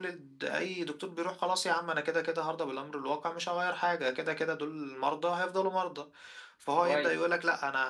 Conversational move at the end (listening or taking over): listening